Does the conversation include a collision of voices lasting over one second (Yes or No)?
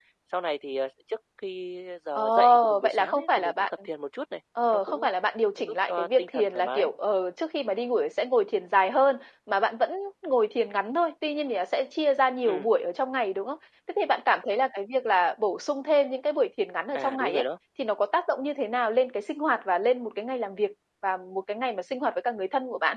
Yes